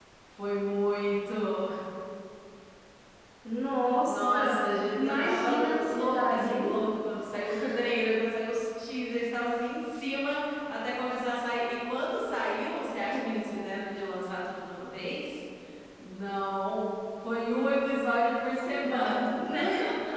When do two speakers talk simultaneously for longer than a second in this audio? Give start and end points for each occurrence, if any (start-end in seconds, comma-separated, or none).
5.0-6.7